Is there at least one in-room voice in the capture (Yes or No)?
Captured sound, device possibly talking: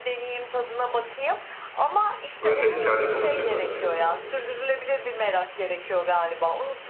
Yes